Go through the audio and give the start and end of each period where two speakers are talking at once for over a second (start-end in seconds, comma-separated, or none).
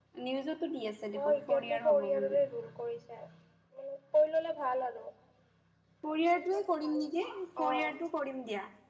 1.2-2.4